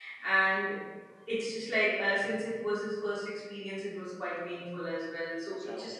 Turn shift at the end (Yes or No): No